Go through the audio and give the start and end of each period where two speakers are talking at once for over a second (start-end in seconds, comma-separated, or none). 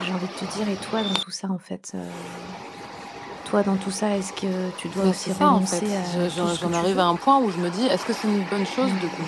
5.0-7.0